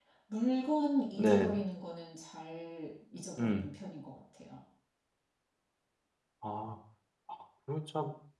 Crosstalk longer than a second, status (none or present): none